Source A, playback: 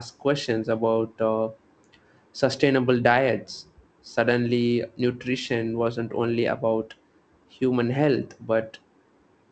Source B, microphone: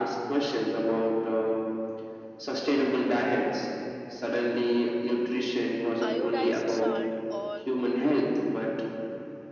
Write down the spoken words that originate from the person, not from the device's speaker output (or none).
iodized salt or